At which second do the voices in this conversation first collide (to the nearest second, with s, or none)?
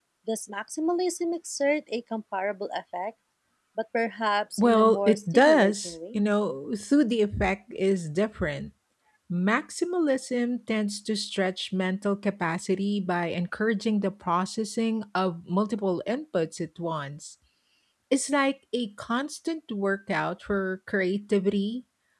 5 s